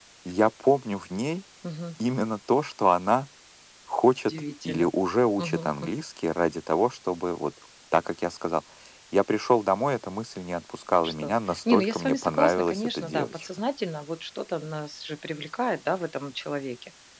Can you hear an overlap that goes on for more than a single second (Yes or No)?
Yes